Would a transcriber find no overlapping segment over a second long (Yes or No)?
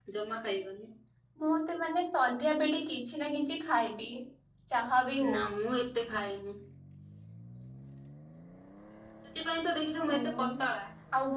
Yes